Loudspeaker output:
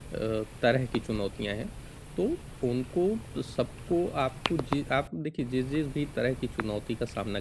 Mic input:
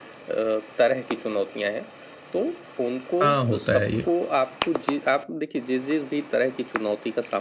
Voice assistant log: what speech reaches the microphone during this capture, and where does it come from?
both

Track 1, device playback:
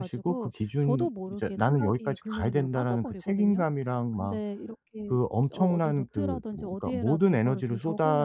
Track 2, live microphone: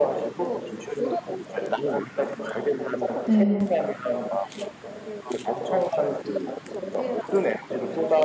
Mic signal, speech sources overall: both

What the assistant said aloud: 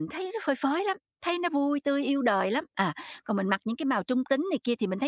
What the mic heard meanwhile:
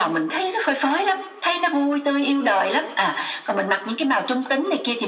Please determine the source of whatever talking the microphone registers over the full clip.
echo only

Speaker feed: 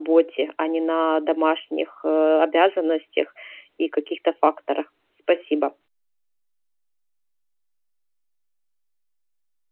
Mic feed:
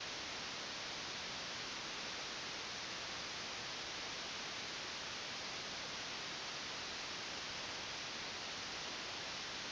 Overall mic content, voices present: neither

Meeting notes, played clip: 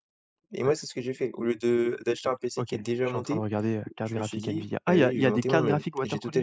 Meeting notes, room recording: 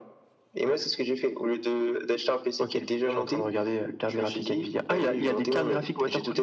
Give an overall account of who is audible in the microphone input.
echo only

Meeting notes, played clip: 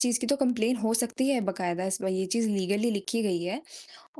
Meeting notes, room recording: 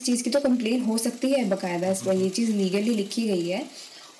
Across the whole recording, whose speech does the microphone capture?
both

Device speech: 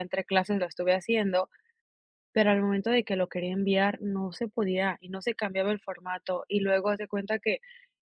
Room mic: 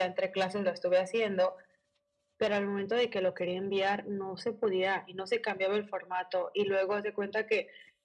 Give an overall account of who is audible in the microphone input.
echo only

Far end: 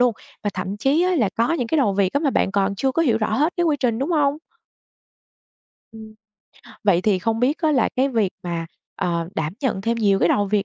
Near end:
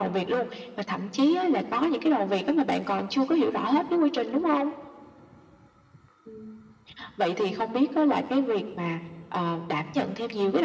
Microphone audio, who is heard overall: echo only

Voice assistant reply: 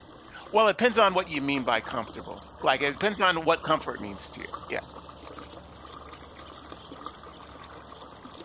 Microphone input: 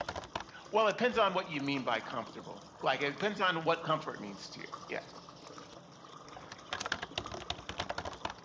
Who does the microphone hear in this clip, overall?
echo only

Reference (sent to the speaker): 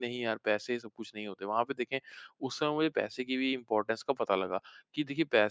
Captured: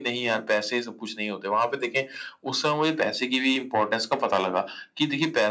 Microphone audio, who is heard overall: echo only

